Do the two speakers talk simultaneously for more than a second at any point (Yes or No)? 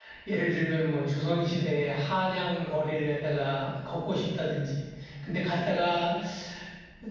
No